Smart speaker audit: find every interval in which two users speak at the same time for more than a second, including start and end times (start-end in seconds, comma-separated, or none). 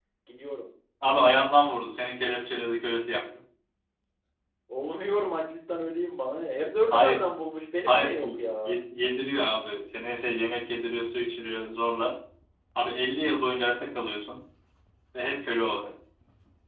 none